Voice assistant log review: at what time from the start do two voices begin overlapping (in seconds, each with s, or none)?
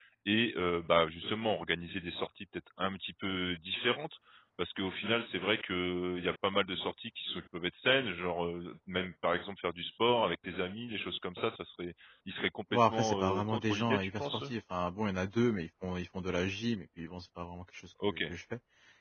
12.7 s